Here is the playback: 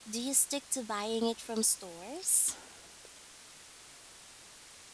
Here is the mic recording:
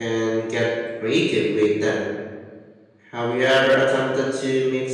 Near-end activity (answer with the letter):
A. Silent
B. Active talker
B